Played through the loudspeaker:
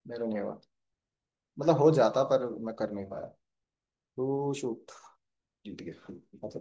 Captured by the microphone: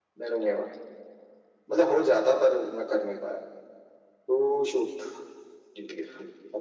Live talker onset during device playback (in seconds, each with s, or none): none